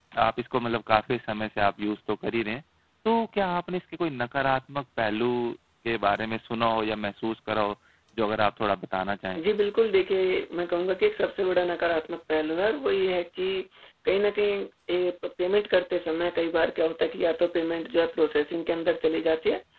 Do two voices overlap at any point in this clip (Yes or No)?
No